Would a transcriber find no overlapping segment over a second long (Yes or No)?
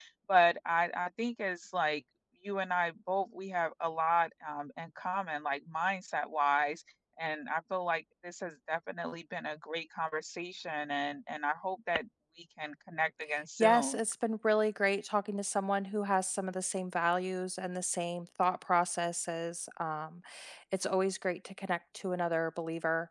Yes